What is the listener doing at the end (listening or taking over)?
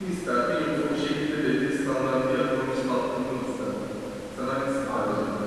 taking over